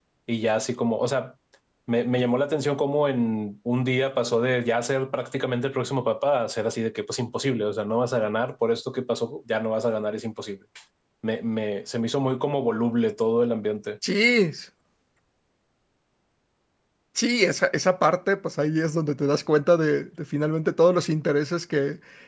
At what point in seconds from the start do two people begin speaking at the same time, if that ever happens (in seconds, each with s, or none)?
none